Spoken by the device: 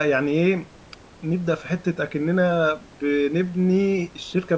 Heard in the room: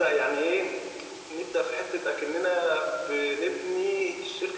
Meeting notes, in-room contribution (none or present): none